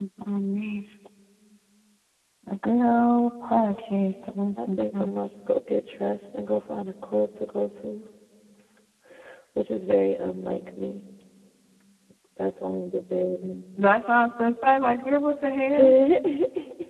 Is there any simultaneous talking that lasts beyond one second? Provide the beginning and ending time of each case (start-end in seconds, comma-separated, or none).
none